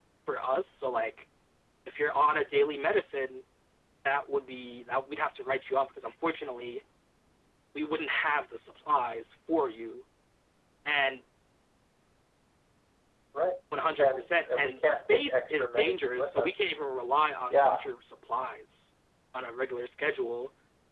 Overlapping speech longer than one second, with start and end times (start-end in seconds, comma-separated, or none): 14.0-16.6